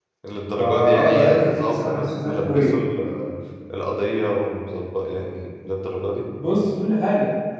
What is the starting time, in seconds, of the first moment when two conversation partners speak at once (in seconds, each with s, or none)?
0.6 s